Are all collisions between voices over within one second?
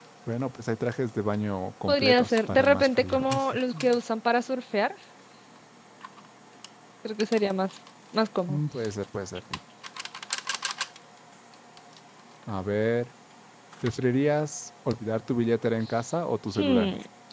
No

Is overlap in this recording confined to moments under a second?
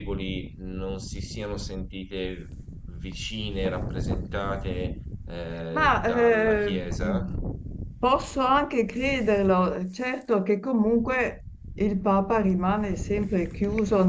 No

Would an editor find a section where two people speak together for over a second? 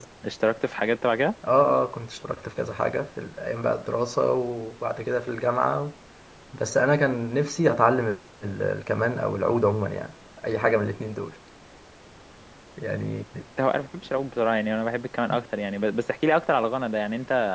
No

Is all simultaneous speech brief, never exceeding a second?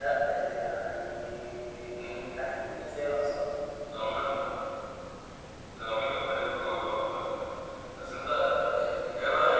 Yes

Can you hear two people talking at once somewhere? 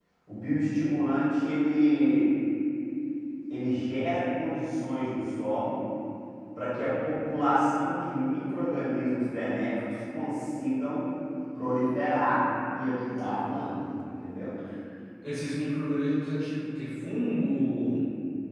No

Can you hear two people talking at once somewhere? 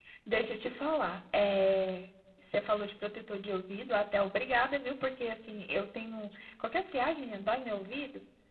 No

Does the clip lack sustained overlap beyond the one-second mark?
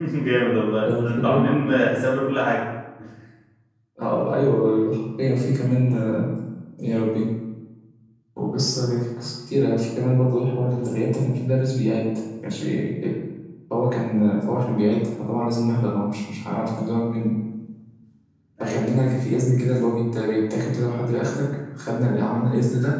Yes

